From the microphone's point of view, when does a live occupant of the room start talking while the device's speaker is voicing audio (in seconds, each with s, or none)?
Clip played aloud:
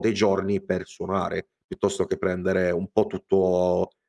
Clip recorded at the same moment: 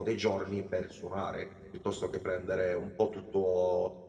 none